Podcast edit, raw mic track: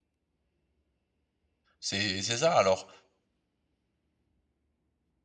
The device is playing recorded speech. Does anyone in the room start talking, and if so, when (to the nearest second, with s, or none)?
2 s